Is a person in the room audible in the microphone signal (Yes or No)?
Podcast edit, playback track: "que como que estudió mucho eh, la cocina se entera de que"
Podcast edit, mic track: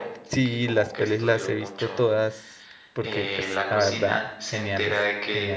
Yes